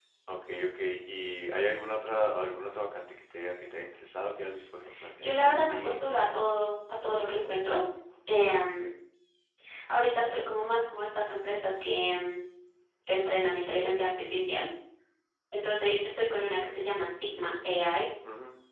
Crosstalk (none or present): present